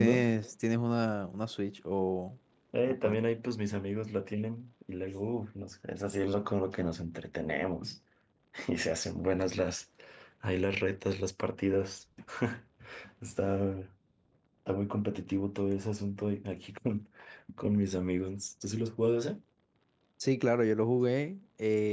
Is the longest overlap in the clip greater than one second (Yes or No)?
No